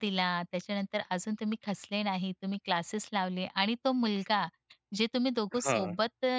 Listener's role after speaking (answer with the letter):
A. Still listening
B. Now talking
A